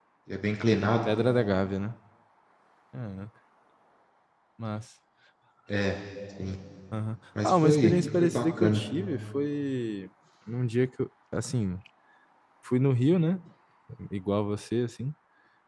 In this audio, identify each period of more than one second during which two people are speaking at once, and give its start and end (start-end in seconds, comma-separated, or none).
7.4-8.8